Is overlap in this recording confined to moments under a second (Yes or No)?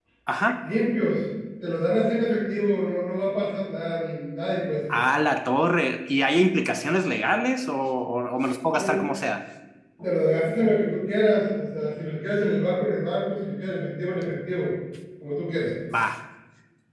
Yes